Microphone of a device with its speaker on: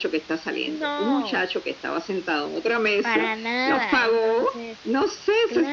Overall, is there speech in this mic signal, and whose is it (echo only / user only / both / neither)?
both